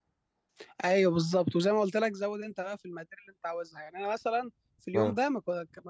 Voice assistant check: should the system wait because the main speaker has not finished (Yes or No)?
Yes